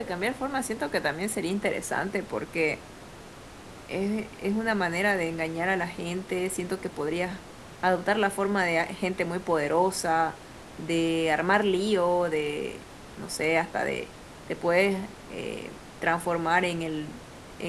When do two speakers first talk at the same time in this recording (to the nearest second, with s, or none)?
none